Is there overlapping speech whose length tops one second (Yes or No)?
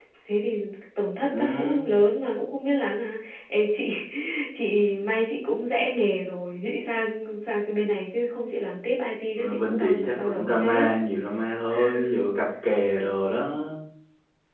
Yes